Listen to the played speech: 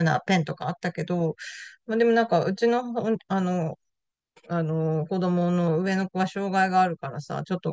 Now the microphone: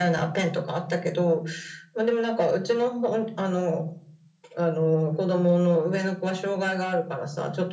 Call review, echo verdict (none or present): present